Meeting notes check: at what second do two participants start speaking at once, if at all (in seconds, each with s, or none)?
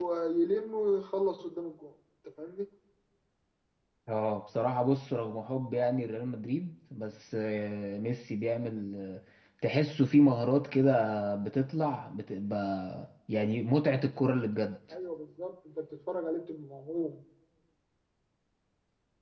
none